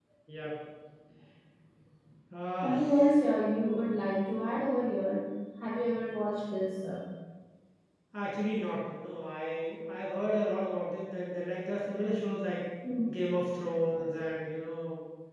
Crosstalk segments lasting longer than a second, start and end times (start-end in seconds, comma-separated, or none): none